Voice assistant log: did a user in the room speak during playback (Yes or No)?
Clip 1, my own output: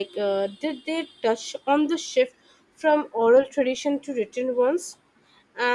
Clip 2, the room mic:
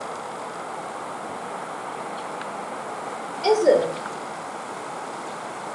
Yes